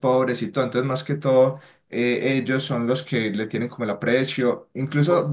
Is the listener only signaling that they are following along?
Yes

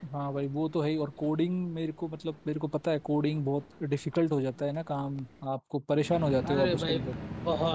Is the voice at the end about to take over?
Yes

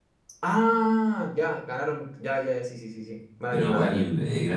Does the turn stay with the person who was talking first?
No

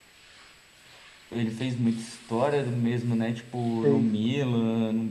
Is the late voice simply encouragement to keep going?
Yes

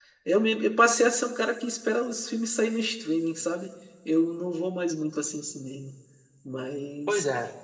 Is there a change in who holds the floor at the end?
Yes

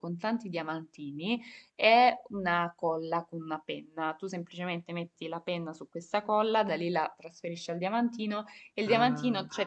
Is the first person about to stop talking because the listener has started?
No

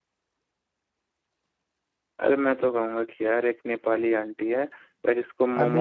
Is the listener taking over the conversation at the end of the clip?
Yes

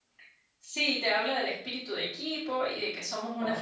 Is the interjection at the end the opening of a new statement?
No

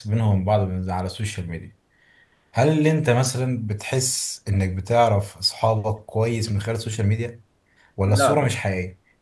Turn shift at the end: No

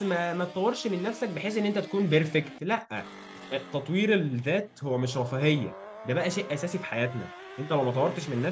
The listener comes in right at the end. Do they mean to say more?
No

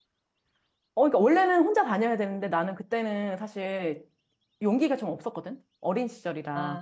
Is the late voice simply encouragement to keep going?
No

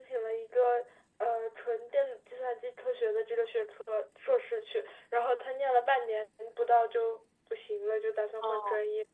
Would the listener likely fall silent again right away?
Yes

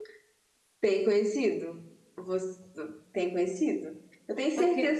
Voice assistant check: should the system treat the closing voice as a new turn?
No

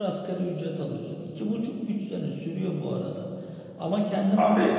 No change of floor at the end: Yes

